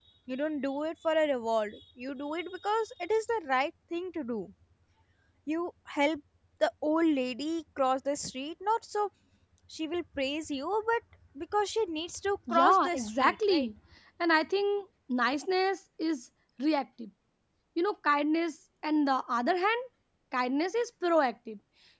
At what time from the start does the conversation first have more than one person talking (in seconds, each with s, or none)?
12.5 s